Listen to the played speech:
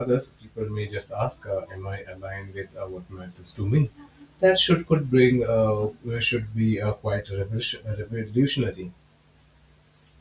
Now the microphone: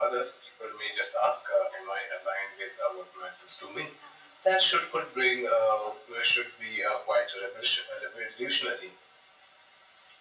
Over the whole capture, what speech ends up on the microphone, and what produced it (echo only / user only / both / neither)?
echo only